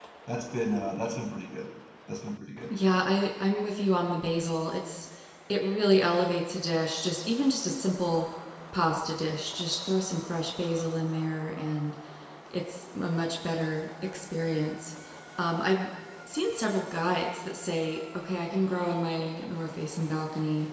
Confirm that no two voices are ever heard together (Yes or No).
Yes